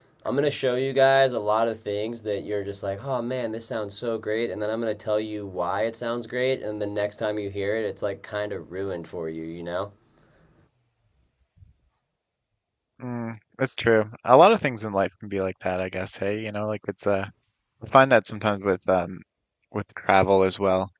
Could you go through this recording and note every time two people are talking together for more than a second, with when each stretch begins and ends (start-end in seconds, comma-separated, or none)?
none